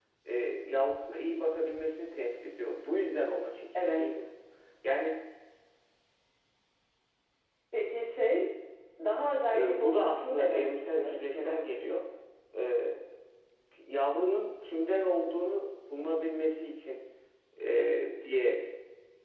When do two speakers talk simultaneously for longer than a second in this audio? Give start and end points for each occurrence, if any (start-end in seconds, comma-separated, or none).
9.5-11.6